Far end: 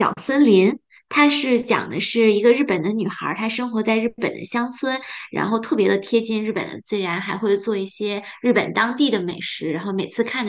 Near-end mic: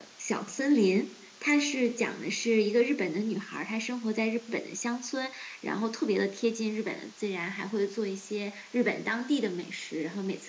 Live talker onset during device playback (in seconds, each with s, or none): none